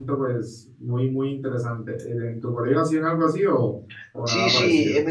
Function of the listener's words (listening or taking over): taking over